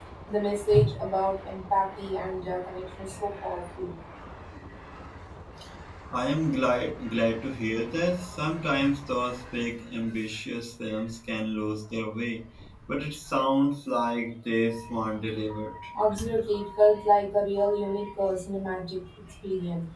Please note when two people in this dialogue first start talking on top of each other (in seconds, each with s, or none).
none